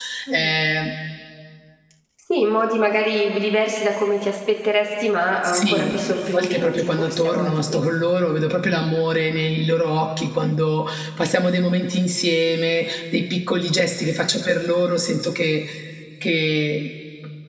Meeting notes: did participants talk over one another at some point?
Yes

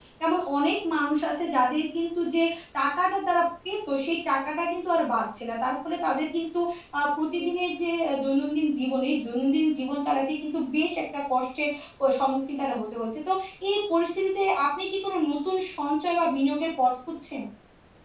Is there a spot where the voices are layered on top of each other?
No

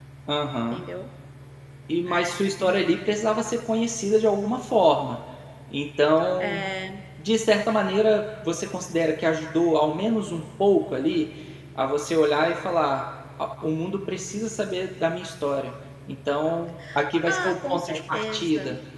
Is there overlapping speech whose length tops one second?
Yes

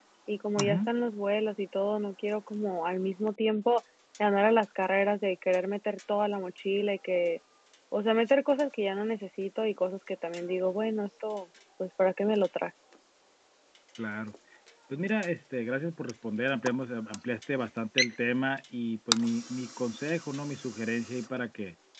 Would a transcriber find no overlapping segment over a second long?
Yes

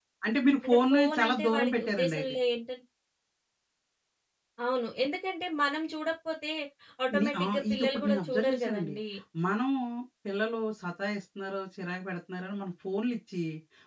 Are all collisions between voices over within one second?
No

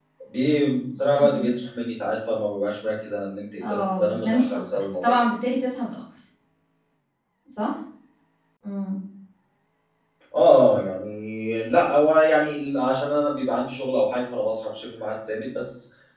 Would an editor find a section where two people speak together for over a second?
Yes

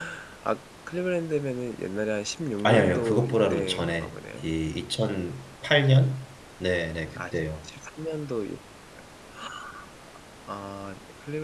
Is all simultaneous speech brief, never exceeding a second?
No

